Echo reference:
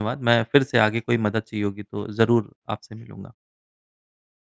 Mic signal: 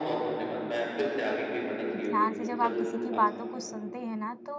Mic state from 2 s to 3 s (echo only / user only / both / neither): both